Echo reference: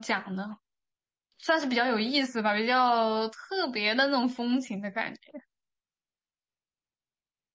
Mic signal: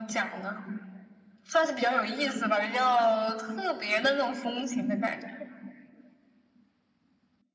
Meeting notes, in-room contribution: none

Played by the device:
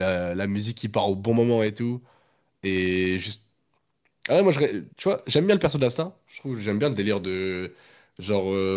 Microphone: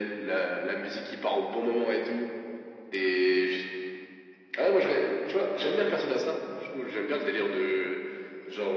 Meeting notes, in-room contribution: none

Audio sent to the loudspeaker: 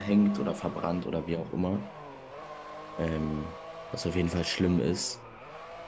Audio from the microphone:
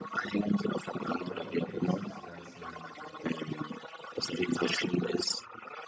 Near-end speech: present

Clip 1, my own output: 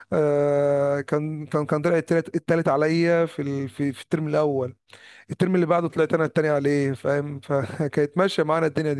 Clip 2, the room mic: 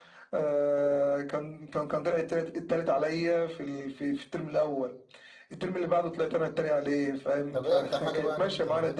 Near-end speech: present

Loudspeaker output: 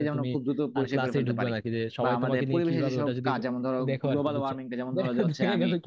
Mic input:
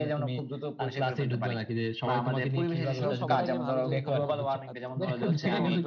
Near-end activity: present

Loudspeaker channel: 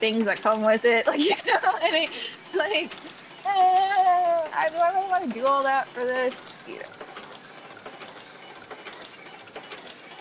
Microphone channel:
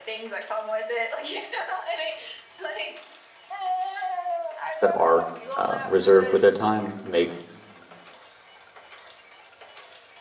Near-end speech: present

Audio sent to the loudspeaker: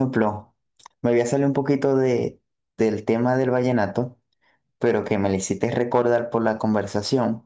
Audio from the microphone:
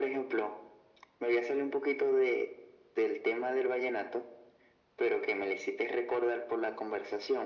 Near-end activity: none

